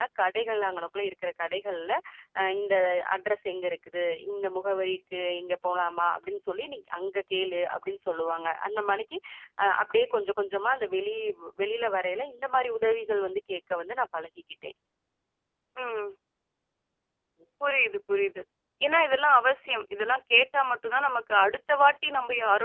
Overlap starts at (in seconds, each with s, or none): none